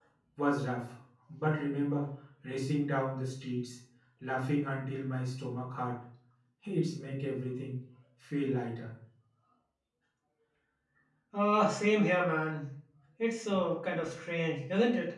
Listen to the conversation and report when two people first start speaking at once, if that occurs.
none

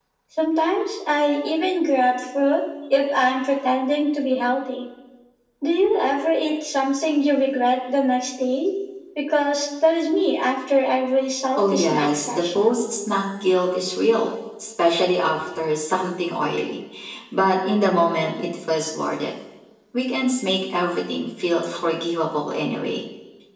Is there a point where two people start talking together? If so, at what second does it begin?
11.6 s

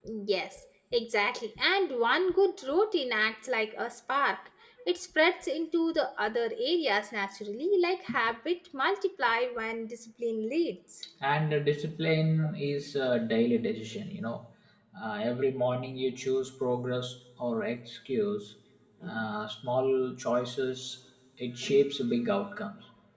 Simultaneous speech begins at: none

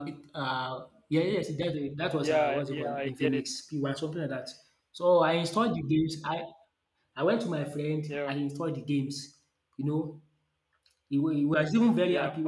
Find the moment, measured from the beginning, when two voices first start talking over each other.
2.2 s

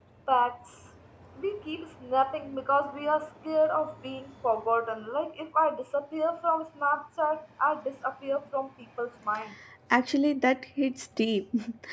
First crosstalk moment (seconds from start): none

